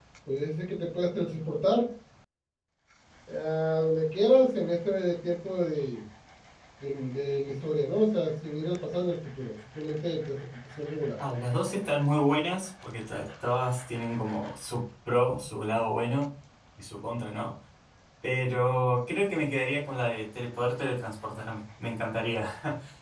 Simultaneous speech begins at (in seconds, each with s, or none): none